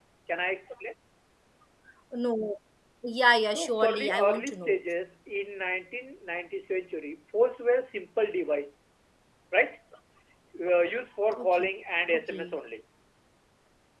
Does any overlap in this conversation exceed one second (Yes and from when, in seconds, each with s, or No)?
Yes, from 3.4 s